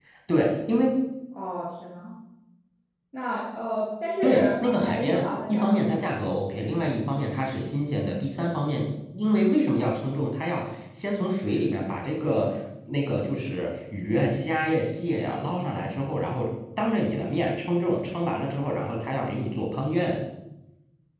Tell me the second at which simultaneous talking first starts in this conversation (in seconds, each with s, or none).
4.2 s